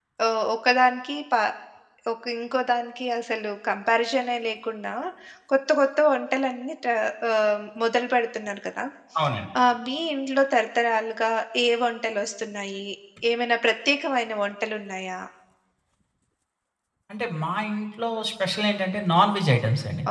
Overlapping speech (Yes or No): No